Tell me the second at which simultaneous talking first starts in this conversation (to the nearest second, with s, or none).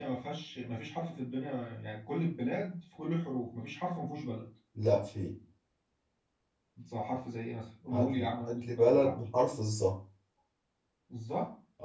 8 s